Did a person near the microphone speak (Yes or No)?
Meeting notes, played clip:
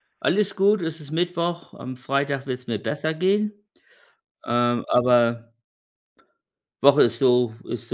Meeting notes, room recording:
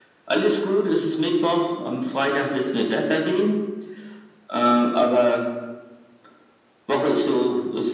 No